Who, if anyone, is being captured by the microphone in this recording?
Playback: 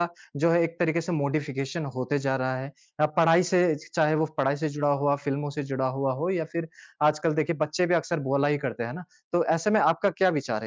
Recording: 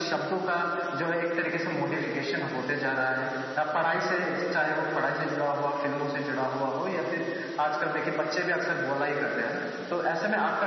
echo only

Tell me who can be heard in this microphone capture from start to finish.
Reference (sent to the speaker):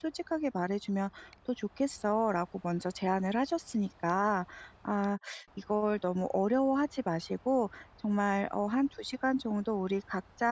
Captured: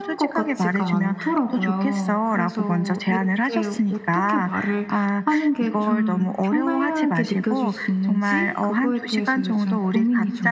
both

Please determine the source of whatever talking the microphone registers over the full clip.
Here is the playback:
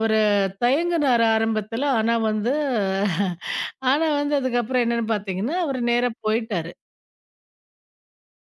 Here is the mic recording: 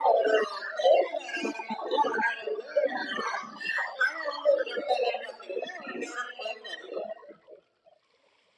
echo only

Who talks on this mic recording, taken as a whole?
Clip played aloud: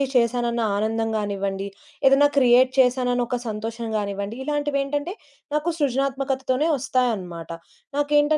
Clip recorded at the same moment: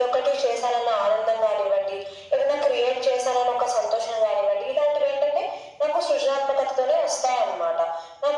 echo only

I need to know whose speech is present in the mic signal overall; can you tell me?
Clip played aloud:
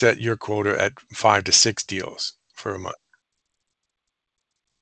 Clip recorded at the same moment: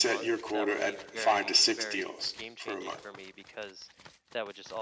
both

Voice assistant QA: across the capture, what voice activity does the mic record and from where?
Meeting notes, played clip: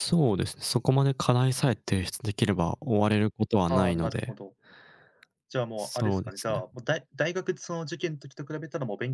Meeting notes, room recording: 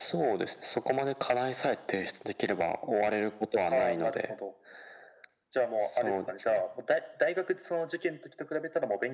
echo only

